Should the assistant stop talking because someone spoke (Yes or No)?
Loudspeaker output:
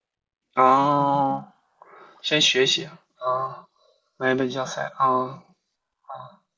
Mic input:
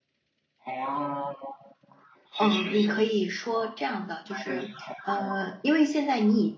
Yes